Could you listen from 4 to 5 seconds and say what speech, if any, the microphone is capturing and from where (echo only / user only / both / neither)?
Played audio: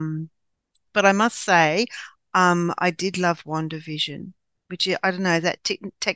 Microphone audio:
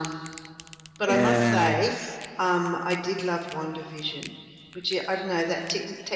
echo only